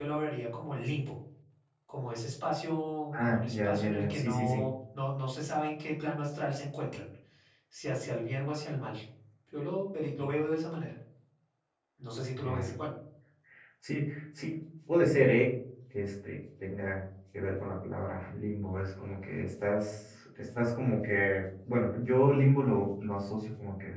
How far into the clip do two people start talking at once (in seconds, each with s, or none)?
3.2 s